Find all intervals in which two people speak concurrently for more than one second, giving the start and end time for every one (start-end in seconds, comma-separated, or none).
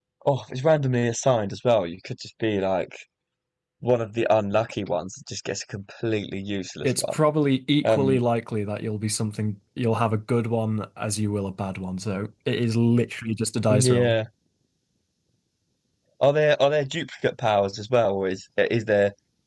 none